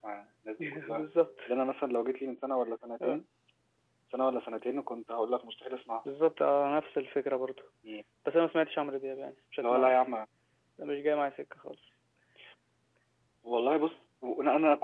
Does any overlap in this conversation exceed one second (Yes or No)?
No